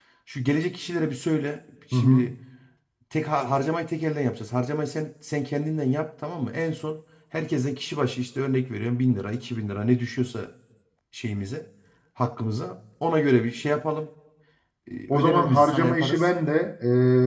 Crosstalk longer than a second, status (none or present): present